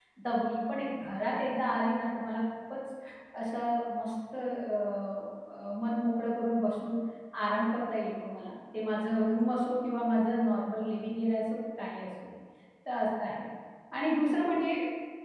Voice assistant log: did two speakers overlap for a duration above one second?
No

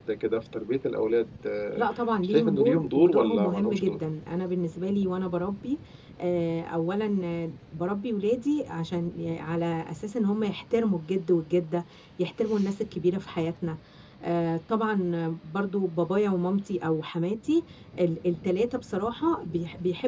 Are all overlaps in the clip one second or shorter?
No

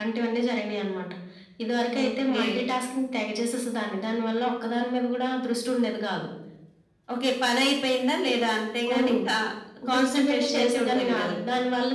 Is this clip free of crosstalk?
No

